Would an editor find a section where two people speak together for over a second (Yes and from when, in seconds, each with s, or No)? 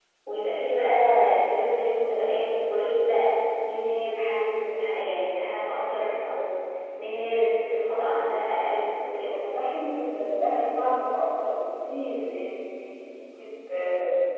No